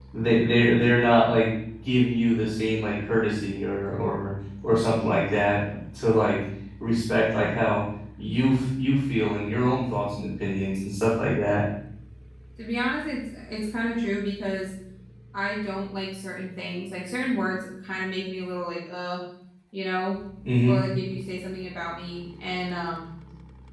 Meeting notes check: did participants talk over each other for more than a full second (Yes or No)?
No